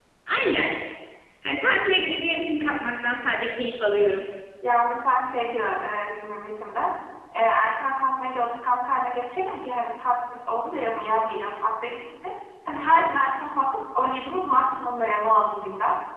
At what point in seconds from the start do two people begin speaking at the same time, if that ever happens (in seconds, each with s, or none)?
none